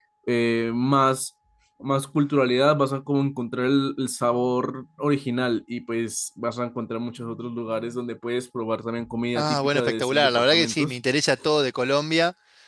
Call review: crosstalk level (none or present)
present